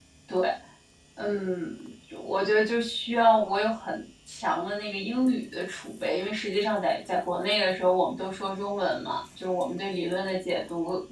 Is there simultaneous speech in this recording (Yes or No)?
No